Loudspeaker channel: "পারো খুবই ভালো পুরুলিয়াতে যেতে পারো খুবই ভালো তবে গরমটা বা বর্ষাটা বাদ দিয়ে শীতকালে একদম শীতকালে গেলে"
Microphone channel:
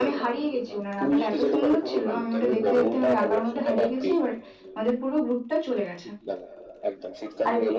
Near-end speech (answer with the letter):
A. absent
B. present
B